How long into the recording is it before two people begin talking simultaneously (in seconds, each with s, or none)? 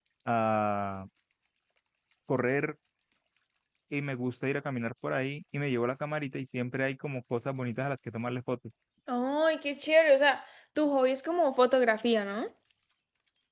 none